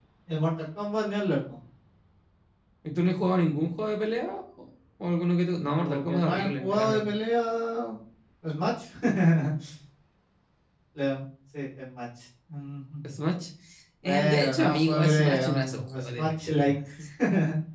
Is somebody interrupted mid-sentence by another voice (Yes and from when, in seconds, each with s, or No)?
Yes, from 5.7 s